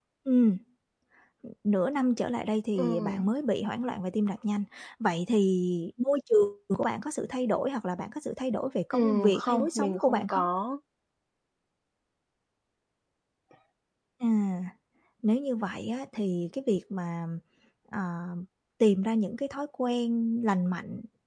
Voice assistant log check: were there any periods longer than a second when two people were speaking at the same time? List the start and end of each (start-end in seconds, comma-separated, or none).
8.9-10.4